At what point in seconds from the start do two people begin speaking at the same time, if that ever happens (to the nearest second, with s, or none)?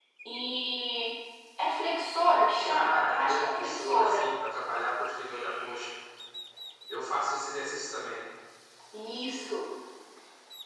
3 s